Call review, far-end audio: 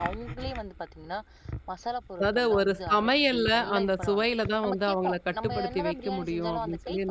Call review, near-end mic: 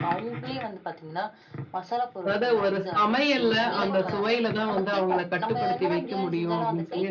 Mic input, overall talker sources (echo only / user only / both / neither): both